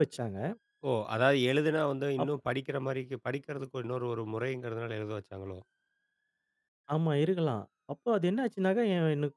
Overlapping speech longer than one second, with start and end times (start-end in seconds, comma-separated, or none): none